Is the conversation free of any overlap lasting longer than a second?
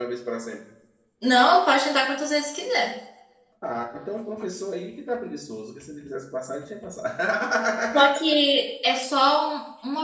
Yes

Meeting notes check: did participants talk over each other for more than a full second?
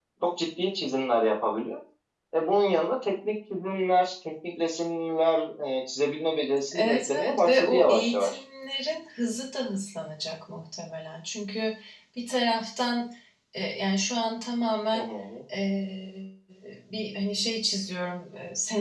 Yes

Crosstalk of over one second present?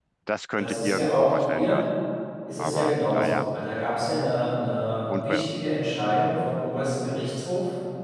Yes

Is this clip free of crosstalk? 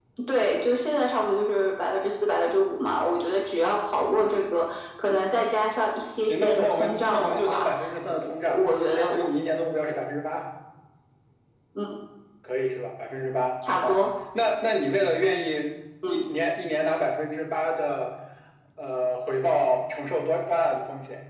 No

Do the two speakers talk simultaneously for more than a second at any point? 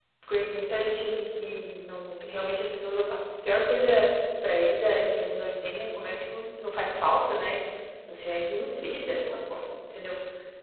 No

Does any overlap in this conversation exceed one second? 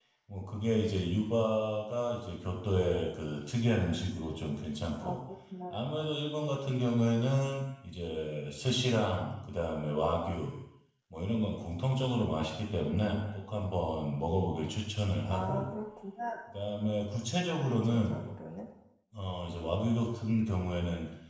No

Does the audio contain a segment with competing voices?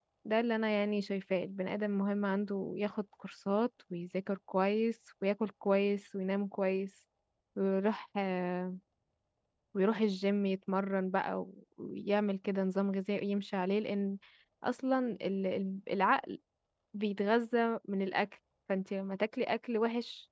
No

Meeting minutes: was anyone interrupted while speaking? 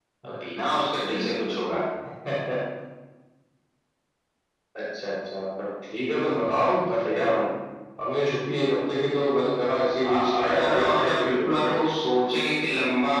Yes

